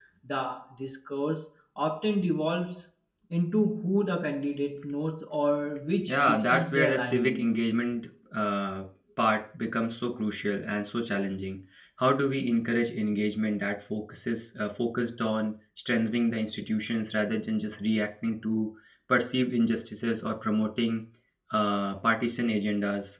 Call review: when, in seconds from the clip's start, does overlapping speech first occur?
6.1 s

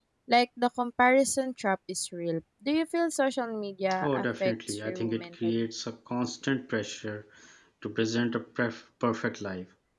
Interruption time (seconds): 4.0 s

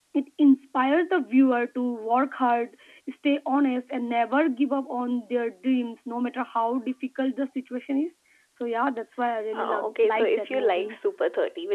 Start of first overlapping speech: 9.5 s

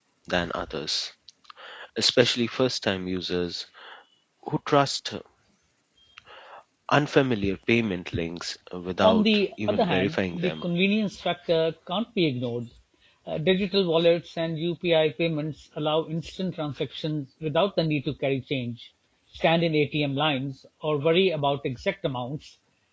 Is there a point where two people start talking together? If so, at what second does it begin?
9.0 s

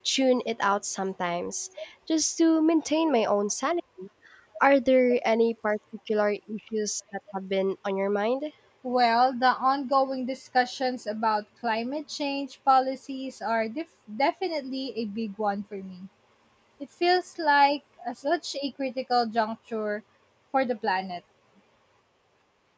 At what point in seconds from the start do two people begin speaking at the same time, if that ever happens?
none

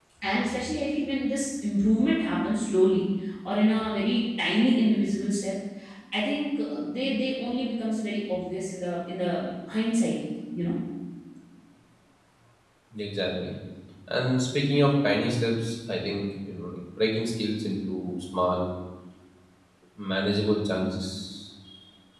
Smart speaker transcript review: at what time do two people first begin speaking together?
none

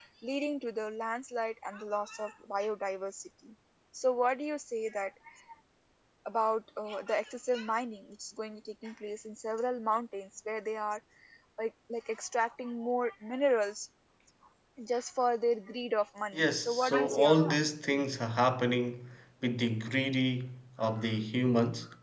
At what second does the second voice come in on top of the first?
16.3 s

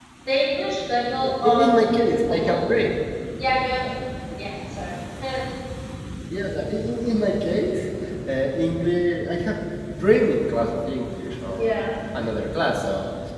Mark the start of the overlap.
1.3 s

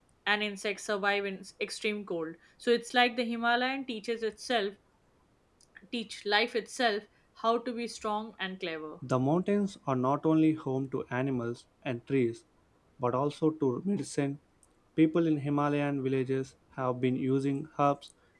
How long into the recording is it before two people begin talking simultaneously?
none

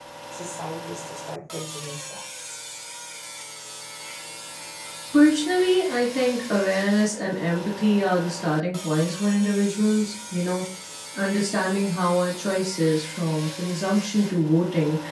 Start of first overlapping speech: none

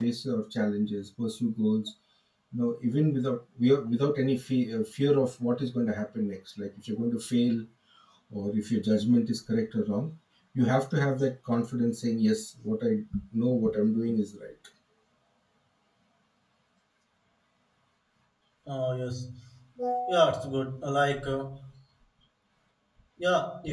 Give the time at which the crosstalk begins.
none

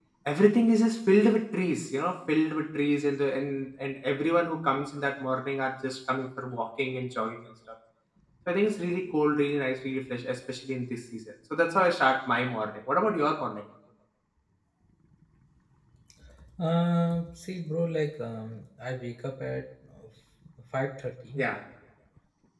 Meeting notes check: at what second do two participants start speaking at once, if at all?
none

